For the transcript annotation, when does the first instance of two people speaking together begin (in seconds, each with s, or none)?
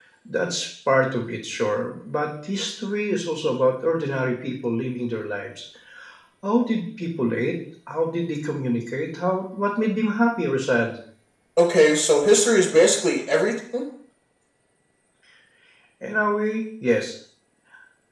none